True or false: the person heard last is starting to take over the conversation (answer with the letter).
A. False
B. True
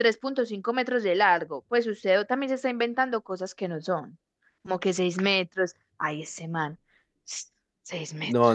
B